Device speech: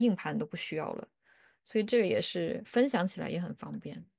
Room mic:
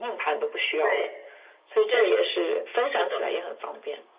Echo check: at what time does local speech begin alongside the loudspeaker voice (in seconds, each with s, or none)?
0.8 s